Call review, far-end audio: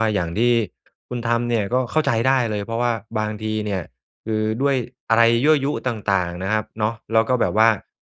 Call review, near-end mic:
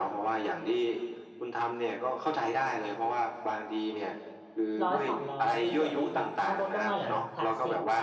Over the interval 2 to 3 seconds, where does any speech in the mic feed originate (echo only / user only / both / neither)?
echo only